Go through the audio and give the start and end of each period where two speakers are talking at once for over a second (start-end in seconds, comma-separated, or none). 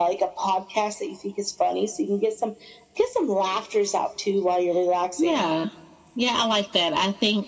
none